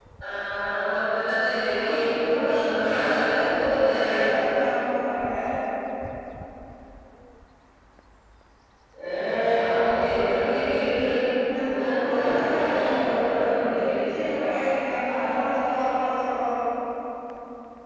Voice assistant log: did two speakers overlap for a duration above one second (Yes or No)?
Yes